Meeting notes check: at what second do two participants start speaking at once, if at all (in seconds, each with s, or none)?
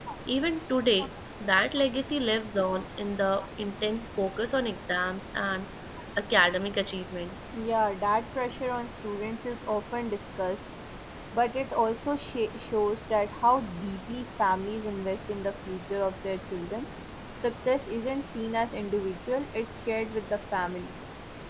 none